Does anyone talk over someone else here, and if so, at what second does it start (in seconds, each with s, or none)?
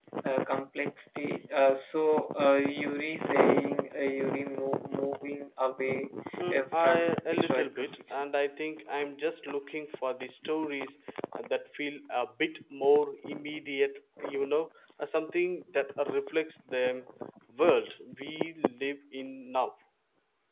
6.5 s